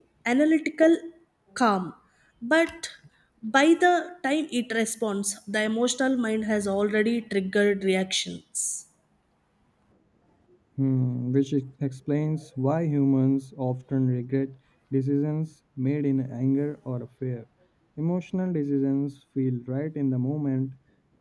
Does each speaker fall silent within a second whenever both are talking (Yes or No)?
Yes